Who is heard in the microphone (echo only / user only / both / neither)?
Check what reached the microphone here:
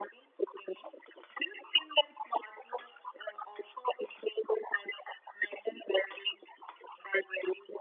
echo only